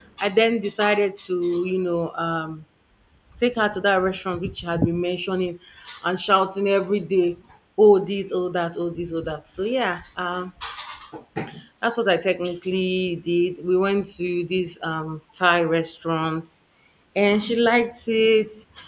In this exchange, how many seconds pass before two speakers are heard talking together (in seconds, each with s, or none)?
none